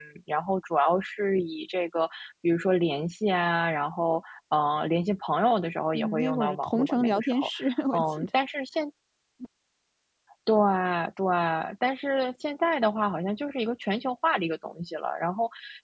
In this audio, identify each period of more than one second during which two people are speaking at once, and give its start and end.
5.9-7.5

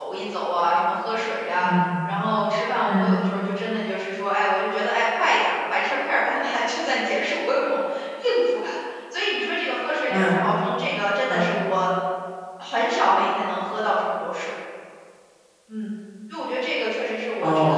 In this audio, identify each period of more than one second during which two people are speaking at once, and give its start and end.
none

